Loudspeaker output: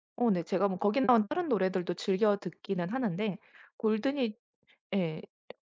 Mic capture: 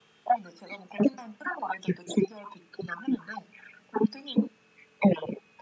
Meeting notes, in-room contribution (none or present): none